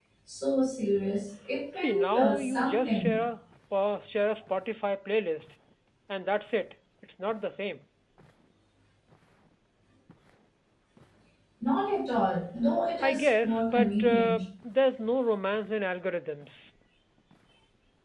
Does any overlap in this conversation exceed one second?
Yes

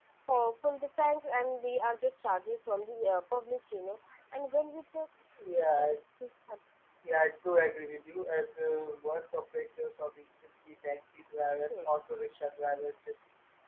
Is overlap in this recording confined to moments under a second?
Yes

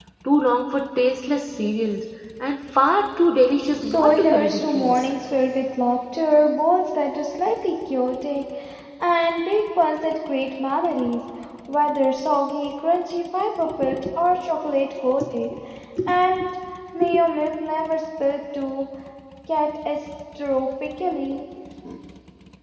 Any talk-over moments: Yes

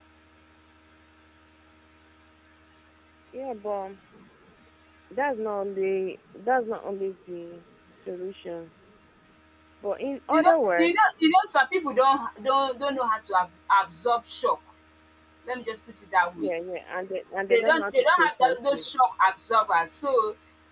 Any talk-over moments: Yes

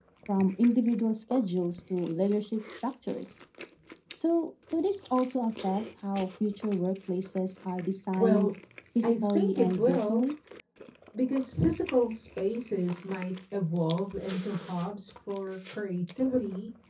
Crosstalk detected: Yes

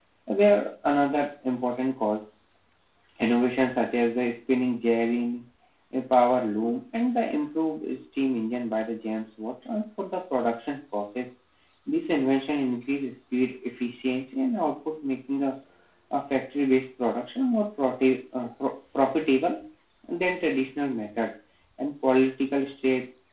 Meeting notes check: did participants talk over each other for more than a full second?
No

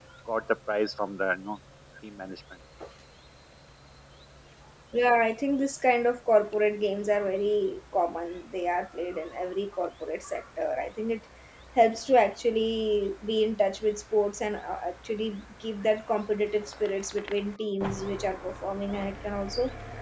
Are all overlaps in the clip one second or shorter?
Yes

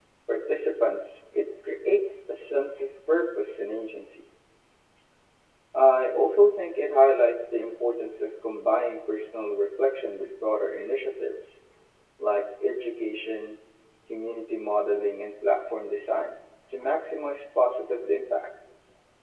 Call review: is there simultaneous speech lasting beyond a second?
No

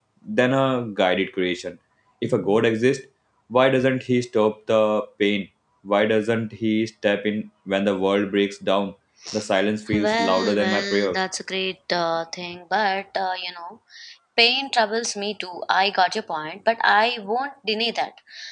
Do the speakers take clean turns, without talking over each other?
No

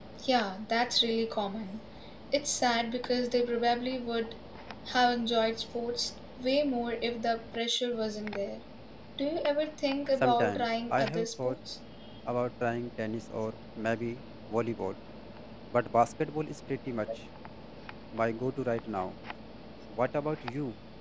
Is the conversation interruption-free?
No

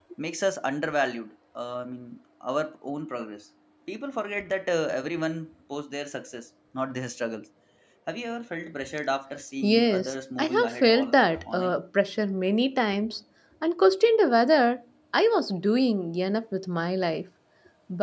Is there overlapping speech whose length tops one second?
Yes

